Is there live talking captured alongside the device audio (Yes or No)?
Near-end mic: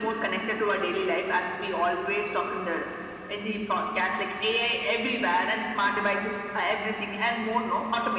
No